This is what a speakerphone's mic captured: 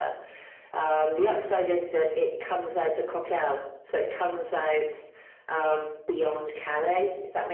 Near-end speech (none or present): none